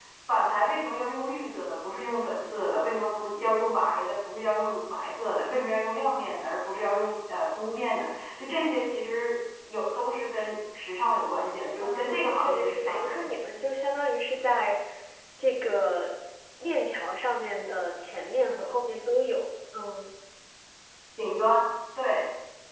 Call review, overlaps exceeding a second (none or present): present